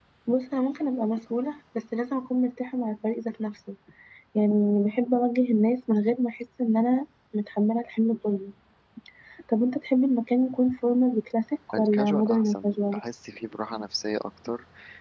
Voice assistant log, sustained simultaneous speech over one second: present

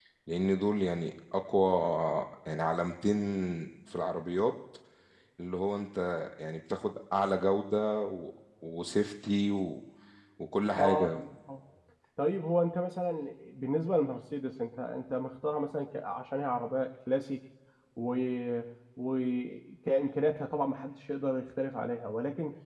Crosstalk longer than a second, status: none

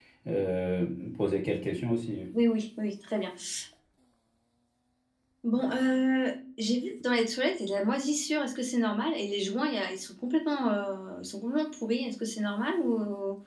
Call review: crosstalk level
none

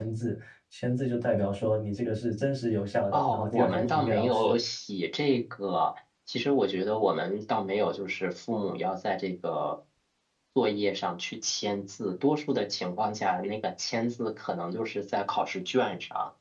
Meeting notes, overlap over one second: present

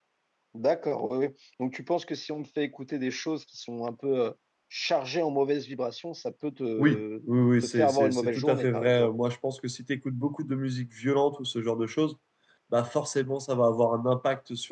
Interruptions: present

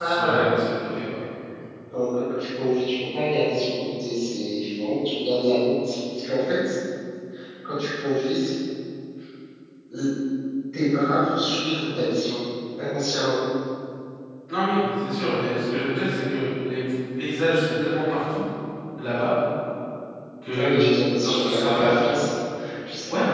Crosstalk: present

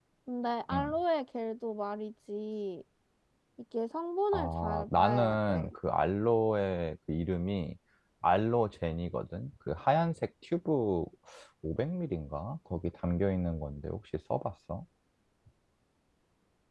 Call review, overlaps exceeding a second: present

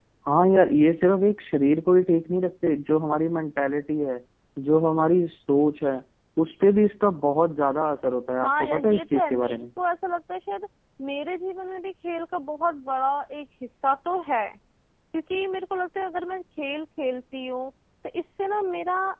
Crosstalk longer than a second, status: present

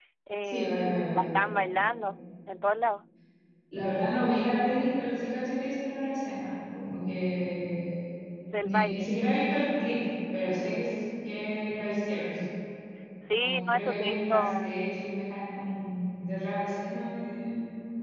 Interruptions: present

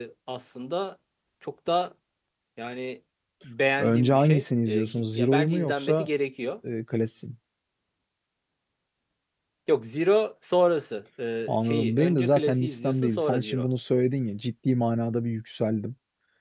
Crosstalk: present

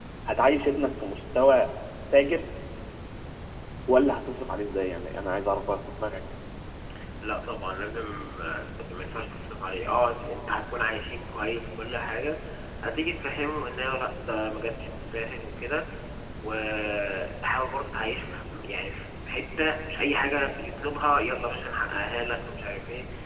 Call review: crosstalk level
none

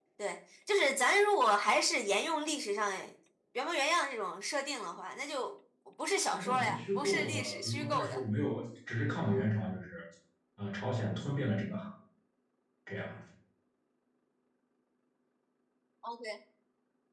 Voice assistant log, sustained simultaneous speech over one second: present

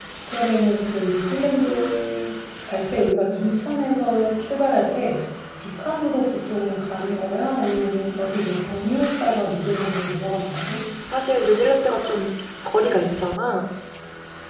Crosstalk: none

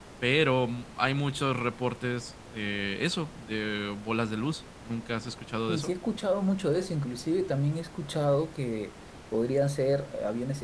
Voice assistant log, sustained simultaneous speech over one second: none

